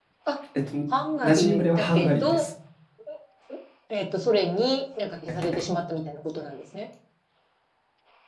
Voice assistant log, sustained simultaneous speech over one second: present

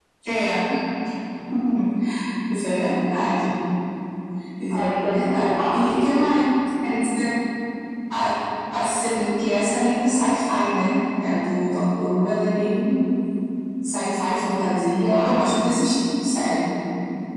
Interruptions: present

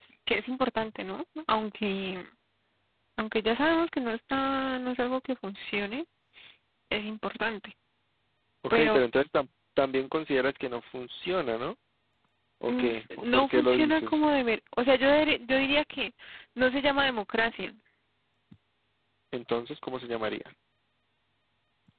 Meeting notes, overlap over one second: present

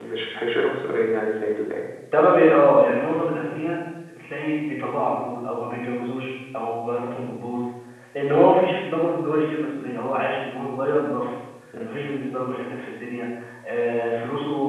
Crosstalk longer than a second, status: none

